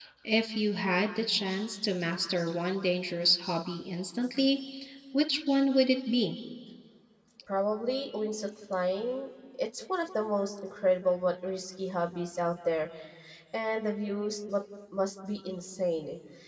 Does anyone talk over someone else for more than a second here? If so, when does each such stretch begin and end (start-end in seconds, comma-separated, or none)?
none